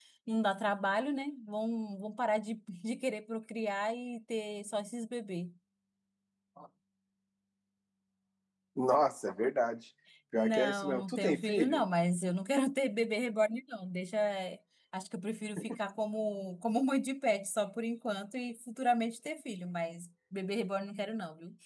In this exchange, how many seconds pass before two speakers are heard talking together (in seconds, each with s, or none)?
10.3 s